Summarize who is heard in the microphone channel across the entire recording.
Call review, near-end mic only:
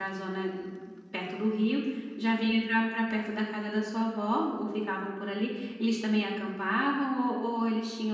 user only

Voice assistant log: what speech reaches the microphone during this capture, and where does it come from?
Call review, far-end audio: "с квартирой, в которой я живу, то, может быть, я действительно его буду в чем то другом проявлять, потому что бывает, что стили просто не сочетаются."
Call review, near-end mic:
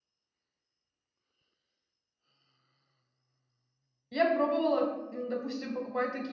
user only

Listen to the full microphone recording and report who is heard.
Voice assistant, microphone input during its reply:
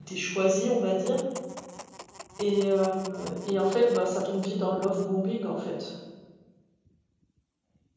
user only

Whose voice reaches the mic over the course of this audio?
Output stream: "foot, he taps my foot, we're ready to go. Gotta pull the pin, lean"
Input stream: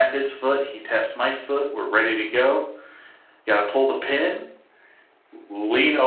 echo only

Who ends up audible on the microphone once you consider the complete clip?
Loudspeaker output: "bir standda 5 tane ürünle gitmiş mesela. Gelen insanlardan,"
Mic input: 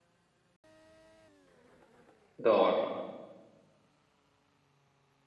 user only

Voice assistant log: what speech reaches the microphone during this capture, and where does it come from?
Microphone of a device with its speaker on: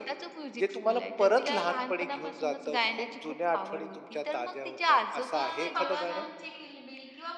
both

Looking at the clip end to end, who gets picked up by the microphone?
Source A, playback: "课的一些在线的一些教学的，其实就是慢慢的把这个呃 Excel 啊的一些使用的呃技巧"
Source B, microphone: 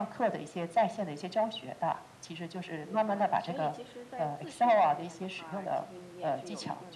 both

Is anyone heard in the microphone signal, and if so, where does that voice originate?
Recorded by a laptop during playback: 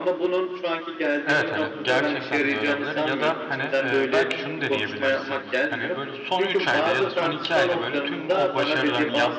both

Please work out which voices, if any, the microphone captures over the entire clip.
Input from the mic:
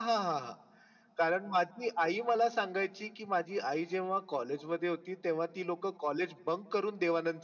echo only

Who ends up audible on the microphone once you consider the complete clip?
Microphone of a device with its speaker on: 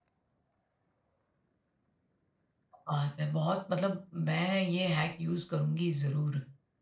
user only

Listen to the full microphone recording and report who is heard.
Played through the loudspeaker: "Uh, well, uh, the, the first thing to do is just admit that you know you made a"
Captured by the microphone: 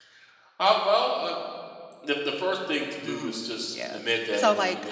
both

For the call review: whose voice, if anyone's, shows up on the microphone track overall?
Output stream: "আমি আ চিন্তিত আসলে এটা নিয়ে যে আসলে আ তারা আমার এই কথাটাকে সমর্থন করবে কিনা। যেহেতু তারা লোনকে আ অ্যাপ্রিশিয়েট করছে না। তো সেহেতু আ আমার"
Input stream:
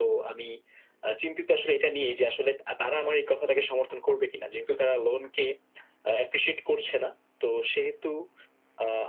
echo only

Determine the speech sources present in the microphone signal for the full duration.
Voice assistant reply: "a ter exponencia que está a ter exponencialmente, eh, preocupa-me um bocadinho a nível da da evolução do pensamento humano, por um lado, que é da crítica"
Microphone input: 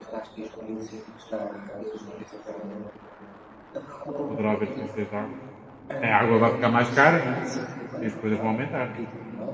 both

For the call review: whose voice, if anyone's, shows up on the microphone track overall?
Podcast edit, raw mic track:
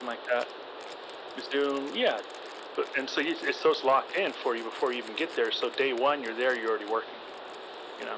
echo only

